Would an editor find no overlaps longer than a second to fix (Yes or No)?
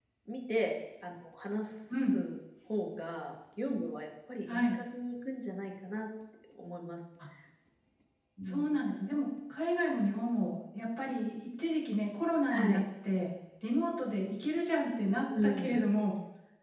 Yes